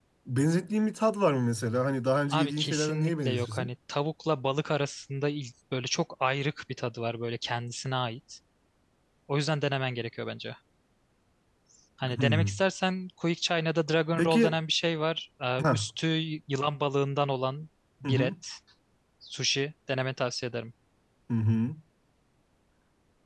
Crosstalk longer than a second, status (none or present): present